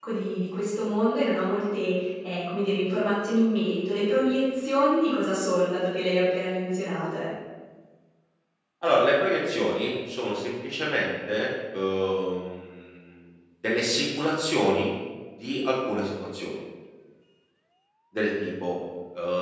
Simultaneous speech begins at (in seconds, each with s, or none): none